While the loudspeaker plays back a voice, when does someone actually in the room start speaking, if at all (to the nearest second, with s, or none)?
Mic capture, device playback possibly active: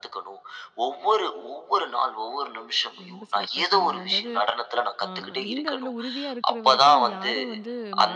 3 s